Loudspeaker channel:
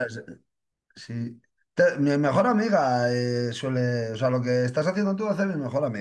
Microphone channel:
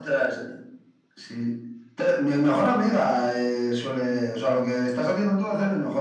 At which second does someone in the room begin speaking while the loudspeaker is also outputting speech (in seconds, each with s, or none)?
none